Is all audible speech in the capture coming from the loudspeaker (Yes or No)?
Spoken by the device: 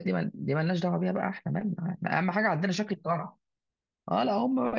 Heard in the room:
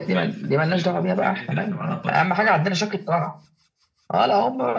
No